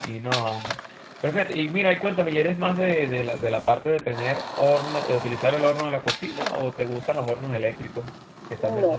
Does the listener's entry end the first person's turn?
Yes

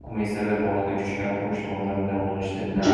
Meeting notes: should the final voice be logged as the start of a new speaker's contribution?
Yes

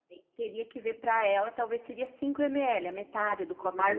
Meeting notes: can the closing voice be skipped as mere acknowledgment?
No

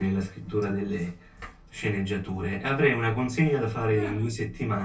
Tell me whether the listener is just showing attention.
Yes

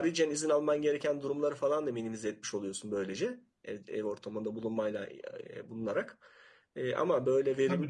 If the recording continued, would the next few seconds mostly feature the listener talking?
Yes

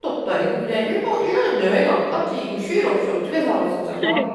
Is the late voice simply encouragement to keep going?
No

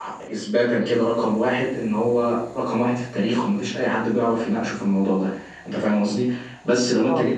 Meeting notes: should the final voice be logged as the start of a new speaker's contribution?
No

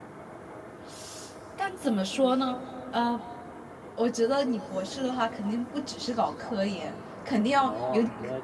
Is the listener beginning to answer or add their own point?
Yes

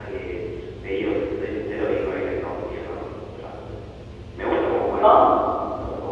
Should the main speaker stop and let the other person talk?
No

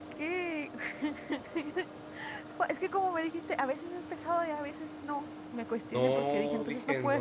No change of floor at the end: No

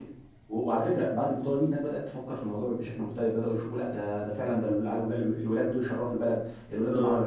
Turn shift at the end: No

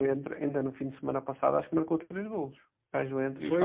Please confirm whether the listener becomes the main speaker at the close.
Yes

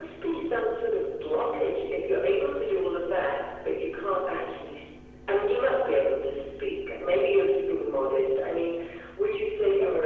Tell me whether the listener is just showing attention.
Yes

